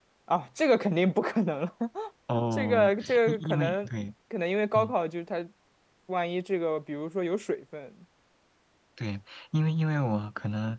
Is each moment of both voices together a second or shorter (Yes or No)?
No